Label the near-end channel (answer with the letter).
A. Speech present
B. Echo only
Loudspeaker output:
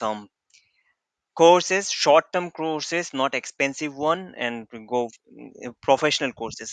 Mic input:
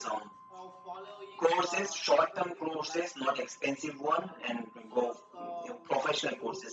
A